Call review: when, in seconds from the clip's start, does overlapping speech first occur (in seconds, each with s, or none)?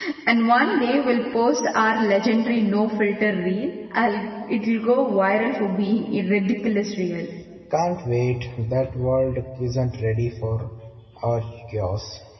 none